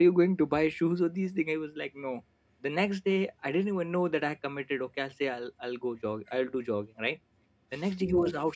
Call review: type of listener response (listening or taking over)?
listening